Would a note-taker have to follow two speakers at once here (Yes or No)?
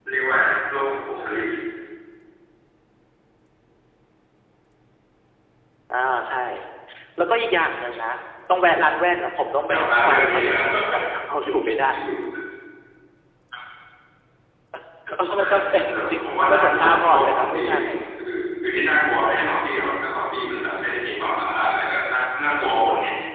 Yes